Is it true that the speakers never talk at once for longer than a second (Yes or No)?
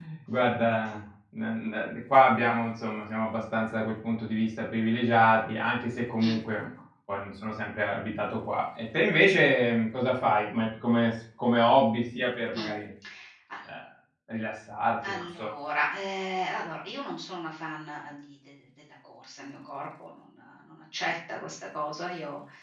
Yes